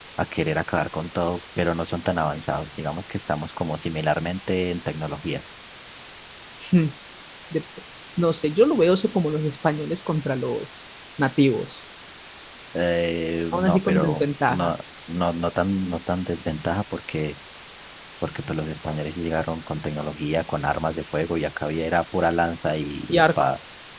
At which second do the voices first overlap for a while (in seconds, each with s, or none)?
13.5 s